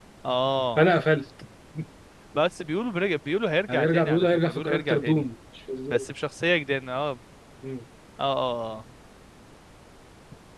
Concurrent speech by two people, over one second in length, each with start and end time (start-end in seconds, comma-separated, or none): 3.7-5.2